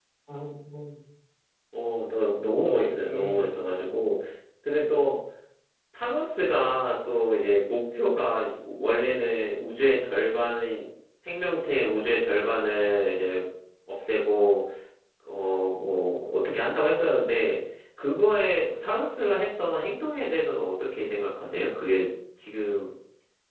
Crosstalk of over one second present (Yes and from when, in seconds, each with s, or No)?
Yes, from 2.6 s